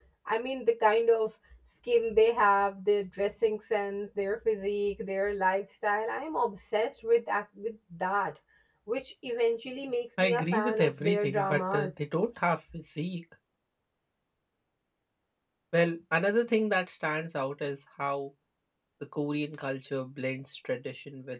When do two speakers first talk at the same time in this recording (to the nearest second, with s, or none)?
10 s